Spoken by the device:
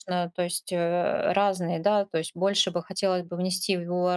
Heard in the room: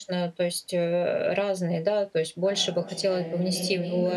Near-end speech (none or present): present